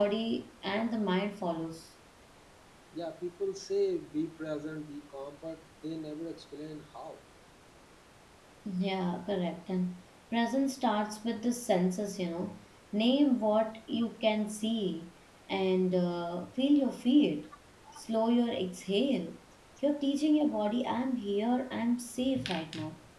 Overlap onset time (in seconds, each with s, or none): none